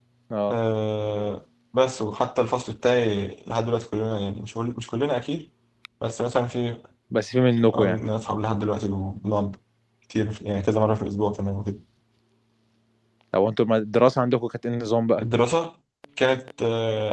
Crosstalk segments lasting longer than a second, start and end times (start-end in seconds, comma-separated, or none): none